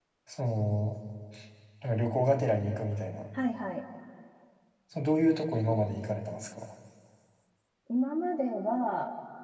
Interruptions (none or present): none